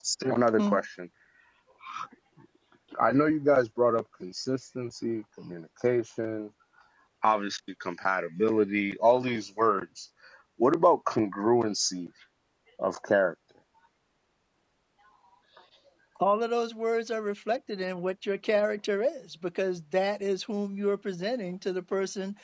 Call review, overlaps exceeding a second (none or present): none